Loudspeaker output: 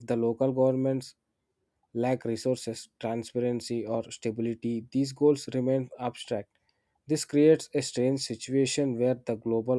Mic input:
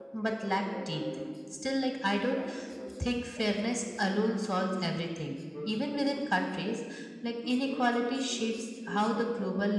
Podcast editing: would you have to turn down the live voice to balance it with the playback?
Yes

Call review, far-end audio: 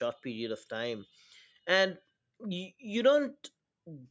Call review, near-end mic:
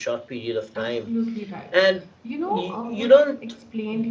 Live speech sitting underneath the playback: Yes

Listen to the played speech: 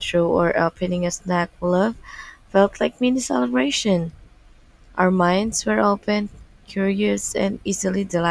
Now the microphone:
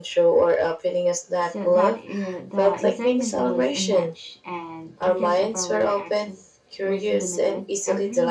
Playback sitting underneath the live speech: No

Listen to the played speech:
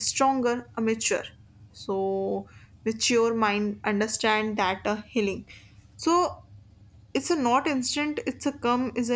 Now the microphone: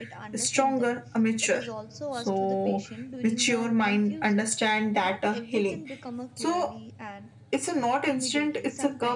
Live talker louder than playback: No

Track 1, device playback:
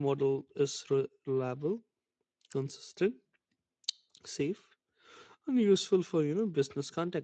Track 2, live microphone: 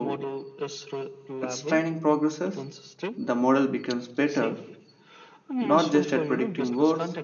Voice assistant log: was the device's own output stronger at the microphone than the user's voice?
No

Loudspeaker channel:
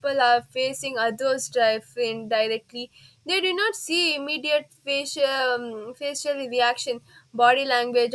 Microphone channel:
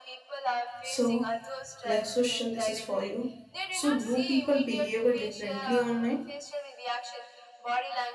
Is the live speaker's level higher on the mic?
Yes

